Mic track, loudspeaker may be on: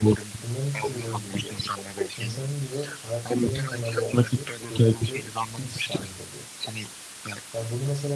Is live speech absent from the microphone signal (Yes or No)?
No